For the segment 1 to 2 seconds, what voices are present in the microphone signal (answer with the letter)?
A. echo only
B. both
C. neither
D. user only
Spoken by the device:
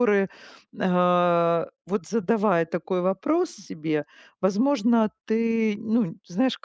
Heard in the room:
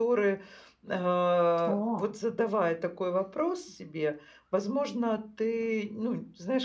B